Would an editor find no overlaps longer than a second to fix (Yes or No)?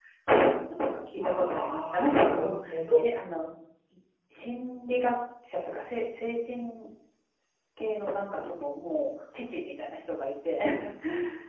No